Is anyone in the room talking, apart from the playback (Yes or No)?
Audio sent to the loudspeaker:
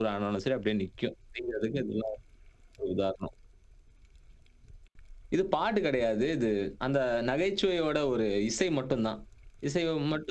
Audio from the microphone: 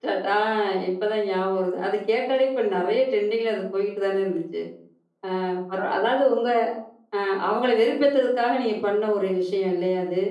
Yes